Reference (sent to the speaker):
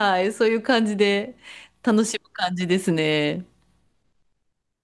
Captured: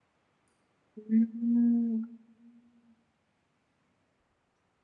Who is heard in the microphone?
user only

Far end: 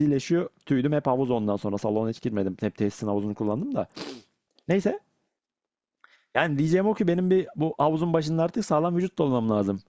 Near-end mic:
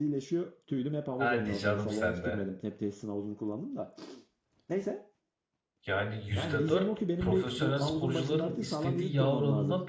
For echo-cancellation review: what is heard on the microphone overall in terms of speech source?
both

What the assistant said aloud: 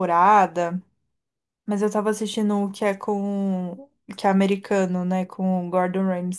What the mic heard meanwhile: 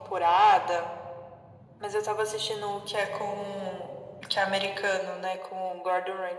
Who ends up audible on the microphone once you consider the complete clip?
echo only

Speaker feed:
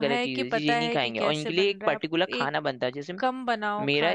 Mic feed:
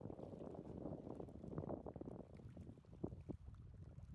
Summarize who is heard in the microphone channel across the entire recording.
neither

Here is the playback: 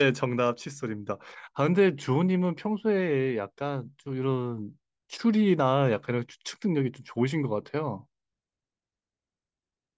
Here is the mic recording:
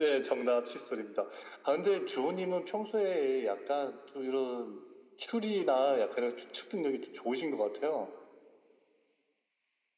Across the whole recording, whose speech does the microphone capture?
echo only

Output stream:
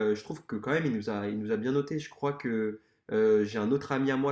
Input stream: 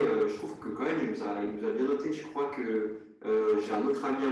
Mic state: both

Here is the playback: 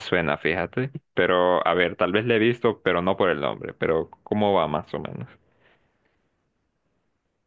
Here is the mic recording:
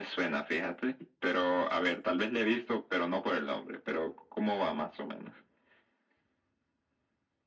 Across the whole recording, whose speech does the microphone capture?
echo only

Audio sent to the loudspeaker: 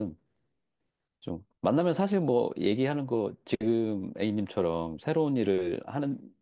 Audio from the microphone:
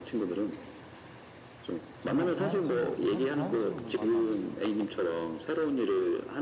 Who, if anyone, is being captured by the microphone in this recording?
both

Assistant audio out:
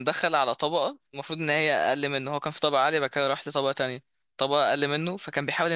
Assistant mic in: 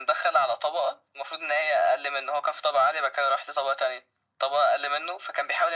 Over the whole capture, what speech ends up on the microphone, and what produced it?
echo only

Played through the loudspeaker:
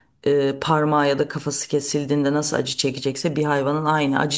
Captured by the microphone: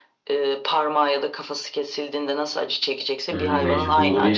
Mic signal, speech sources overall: both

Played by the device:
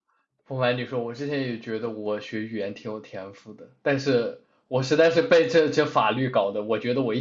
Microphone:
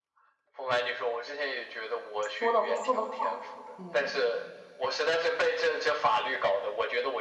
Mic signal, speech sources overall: both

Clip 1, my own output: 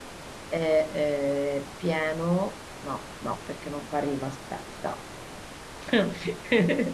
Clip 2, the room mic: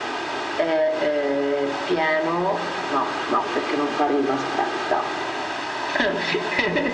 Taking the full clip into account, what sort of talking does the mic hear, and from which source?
echo only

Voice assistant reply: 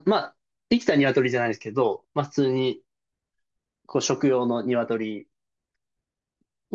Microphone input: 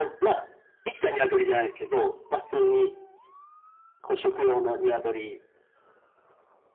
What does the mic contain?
echo only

